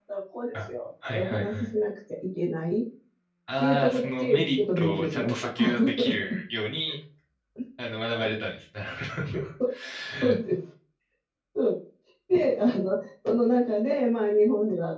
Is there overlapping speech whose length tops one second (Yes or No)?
Yes